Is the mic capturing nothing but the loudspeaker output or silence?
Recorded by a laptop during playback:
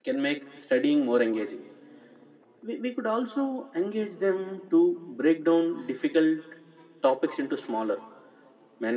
Yes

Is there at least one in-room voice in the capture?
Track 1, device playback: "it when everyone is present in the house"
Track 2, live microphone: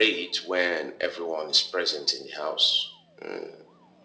No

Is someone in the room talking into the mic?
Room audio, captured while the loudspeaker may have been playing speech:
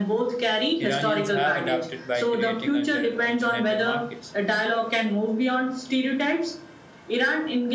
Yes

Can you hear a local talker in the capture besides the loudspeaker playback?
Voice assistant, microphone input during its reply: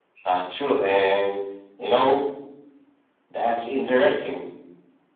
No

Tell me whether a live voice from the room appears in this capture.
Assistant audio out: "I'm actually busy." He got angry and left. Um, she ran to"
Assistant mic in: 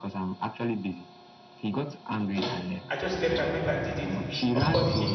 Yes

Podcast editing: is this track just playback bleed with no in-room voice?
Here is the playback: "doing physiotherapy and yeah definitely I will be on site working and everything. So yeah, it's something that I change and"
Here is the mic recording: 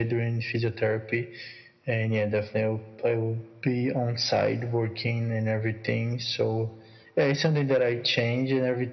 Yes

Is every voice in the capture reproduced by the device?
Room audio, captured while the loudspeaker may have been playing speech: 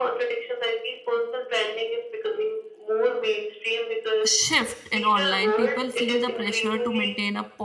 No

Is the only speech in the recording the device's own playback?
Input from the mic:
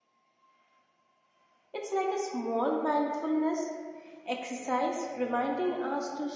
No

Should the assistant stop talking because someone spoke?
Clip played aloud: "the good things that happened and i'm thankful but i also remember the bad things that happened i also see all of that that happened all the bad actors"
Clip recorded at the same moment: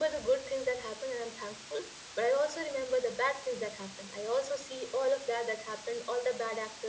No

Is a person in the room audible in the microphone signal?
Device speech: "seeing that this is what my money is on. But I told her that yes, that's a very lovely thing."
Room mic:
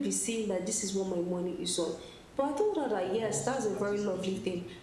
Yes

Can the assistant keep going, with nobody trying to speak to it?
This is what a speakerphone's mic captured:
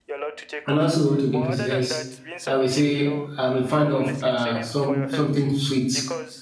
No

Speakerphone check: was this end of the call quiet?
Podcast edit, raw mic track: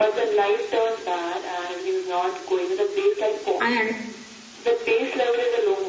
No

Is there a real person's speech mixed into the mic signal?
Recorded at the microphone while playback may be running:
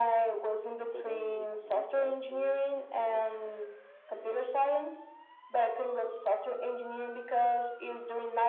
Yes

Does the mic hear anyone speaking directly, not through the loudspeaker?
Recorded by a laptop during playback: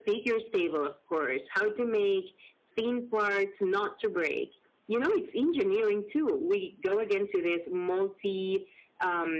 No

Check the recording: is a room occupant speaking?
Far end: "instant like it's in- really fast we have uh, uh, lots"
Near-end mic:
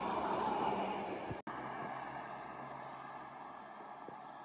No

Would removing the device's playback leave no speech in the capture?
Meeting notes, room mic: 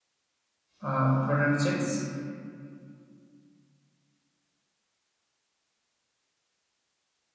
No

